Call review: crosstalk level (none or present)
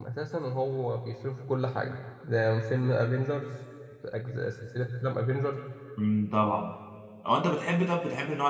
none